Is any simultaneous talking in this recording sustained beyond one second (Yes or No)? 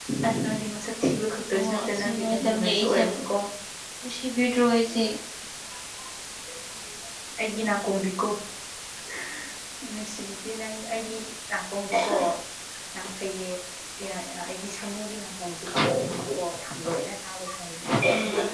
Yes